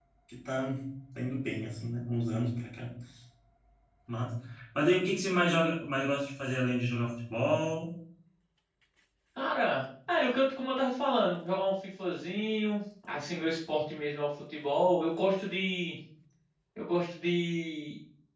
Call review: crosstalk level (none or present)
none